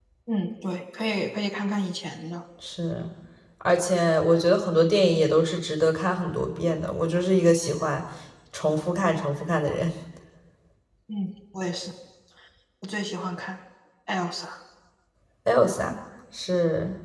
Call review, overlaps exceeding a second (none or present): none